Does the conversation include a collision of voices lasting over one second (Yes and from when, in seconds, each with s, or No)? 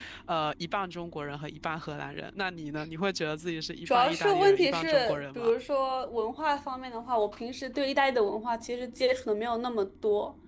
Yes, from 3.9 s